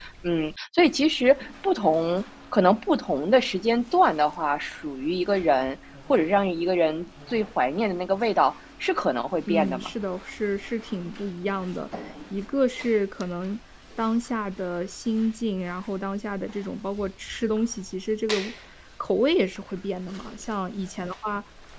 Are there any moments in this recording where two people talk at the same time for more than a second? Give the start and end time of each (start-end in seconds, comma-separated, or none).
none